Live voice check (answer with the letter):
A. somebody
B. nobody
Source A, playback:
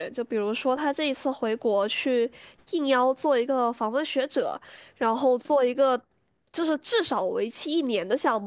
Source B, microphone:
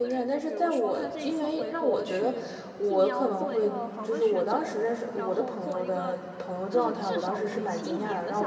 A